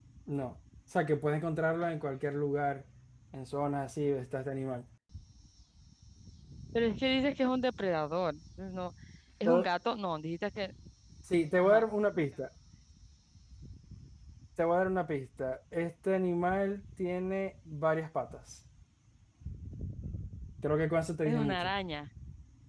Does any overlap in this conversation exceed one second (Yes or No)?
No